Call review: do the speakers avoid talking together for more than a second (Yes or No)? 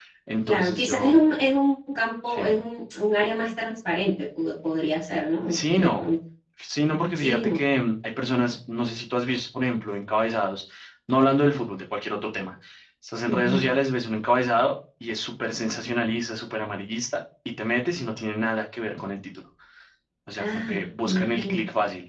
No